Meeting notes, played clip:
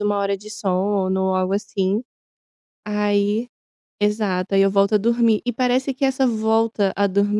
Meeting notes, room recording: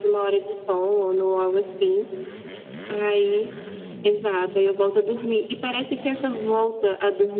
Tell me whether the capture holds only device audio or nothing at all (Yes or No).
Yes